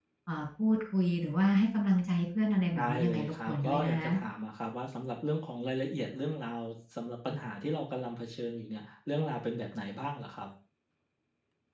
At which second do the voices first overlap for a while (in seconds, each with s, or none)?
2.7 s